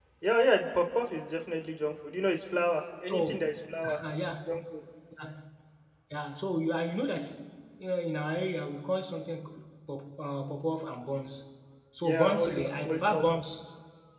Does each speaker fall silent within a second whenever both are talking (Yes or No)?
No